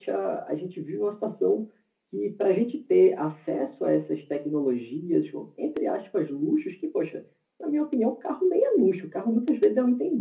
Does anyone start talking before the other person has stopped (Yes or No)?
No